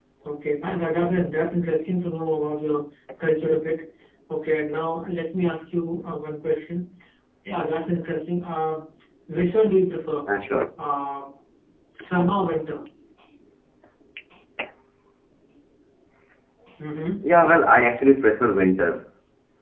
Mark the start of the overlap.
none

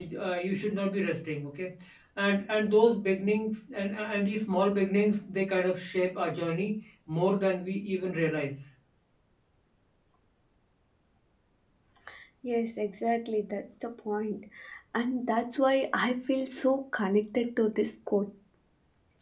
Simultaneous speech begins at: none

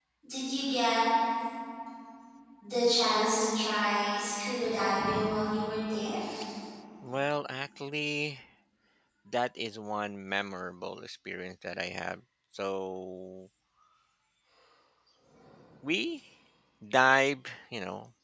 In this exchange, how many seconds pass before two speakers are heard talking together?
none

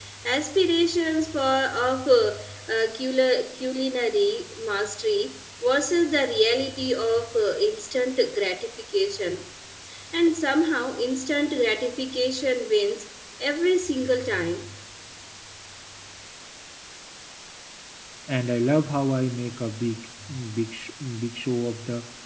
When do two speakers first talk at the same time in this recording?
none

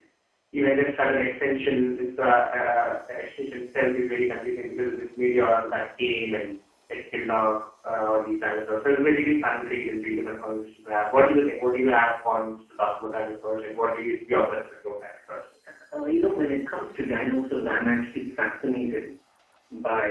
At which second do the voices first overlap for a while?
none

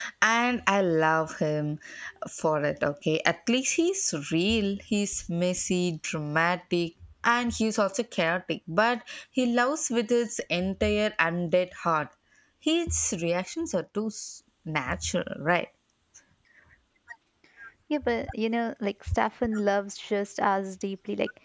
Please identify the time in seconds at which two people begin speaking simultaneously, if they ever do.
none

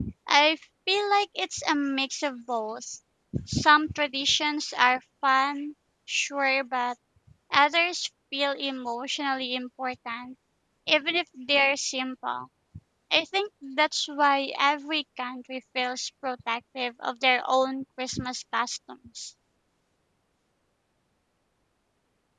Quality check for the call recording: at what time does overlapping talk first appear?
none

